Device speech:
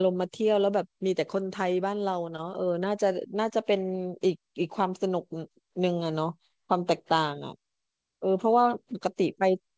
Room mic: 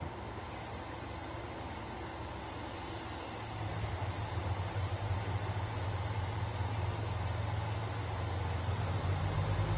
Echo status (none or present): none